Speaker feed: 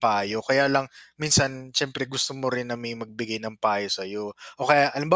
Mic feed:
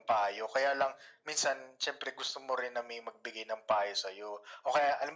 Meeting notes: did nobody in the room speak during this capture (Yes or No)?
Yes